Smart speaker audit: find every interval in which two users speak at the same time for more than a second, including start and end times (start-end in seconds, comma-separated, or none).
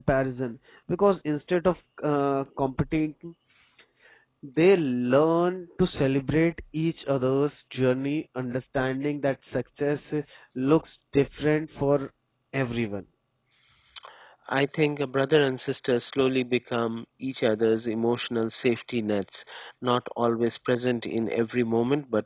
none